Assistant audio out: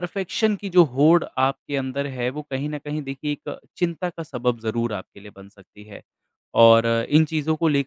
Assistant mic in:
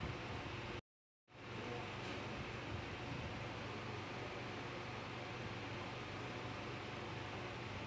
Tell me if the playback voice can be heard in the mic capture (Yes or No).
No